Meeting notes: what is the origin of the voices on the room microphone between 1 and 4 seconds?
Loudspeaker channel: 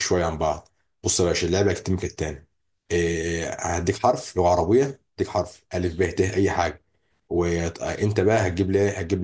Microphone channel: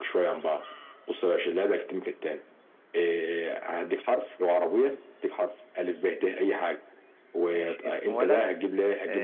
echo only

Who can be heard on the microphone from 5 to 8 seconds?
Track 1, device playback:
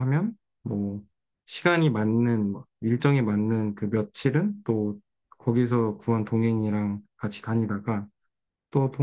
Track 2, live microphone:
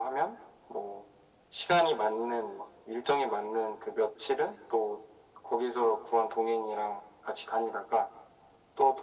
echo only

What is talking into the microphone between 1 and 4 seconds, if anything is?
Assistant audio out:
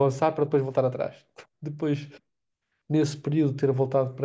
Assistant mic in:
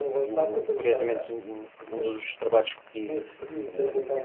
both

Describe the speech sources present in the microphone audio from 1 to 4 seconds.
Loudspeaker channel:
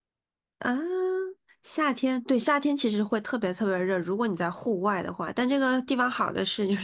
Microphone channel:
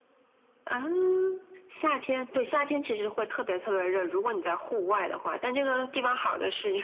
echo only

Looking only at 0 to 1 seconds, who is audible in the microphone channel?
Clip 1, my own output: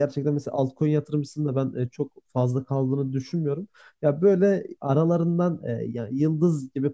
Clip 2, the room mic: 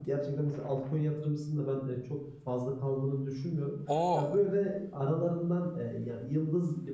echo only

